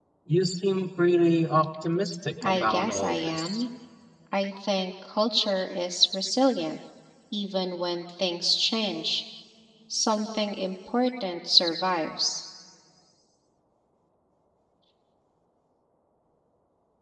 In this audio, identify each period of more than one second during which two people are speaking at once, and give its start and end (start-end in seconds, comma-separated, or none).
2.4-3.6